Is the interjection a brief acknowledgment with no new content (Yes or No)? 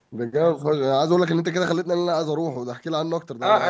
No